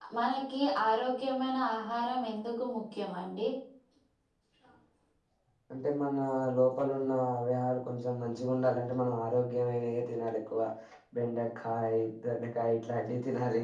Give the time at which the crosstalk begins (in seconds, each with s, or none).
none